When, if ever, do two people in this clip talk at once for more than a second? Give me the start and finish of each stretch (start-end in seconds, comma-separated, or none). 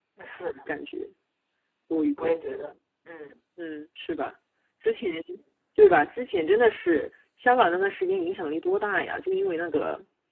none